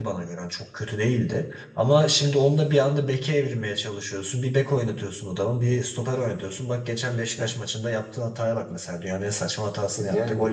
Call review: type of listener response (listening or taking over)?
listening